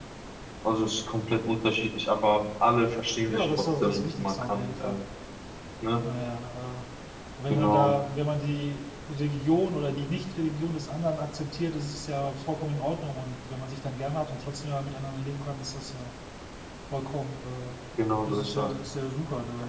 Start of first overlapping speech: 3 s

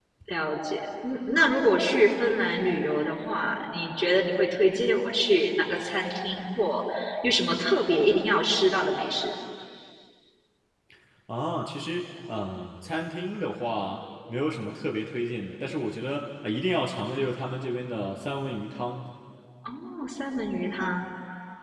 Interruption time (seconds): none

